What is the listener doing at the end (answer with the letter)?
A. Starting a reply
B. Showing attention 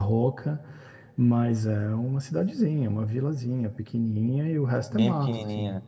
B